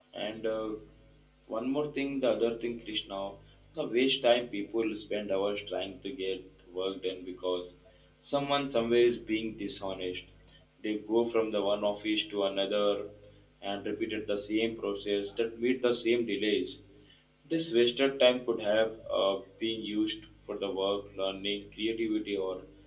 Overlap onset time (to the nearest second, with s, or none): none